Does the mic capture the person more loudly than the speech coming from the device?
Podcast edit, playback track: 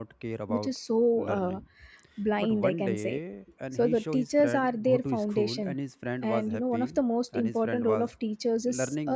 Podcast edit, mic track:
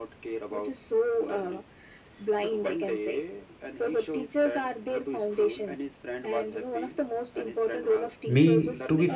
Yes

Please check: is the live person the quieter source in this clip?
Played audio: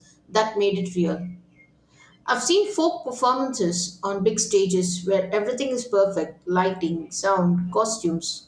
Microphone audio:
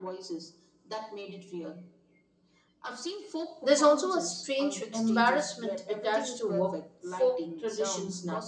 No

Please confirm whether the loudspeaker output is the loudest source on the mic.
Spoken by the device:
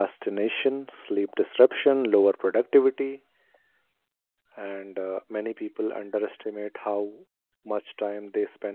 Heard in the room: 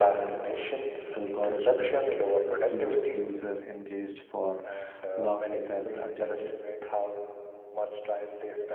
No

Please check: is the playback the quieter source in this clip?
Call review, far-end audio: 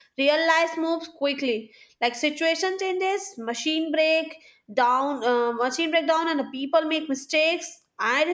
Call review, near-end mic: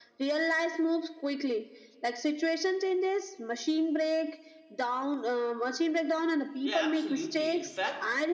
No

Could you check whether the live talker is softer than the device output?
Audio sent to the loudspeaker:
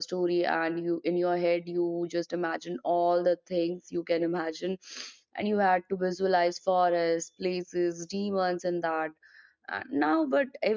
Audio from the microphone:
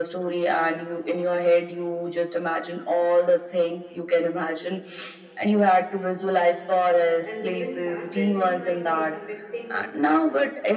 Yes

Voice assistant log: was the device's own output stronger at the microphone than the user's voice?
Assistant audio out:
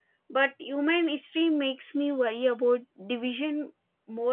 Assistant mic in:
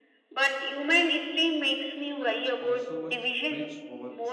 Yes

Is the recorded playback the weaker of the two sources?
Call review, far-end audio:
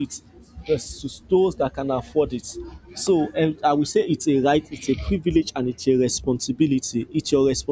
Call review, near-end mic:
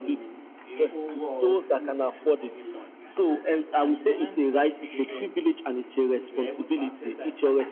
No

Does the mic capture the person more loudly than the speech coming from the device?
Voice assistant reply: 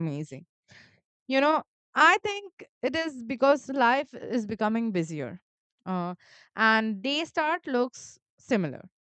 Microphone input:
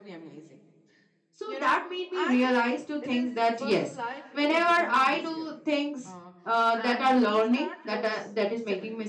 Yes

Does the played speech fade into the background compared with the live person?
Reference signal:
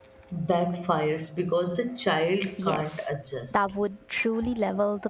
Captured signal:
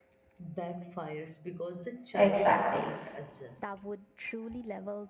Yes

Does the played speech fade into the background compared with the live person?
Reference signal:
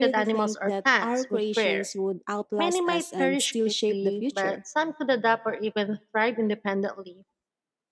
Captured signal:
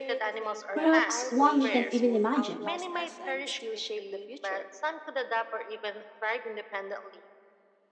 Yes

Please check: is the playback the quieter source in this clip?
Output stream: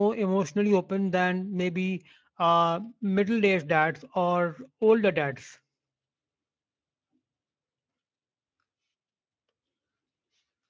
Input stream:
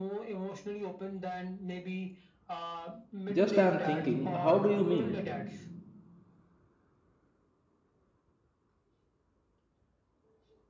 Yes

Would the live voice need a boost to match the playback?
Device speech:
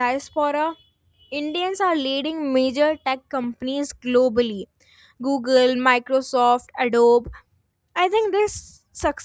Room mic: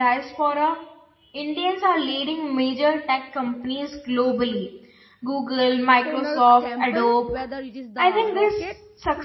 Yes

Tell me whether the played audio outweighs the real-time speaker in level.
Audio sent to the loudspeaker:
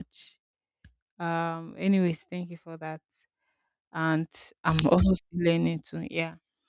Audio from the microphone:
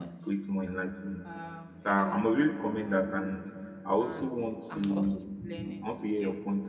No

